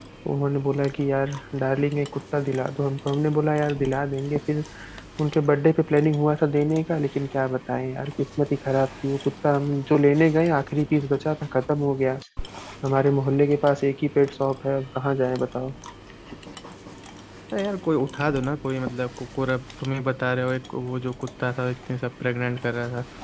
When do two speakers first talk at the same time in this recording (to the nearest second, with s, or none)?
none